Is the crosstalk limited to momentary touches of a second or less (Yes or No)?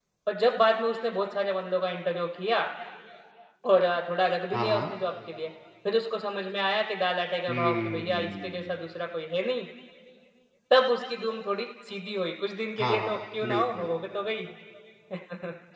No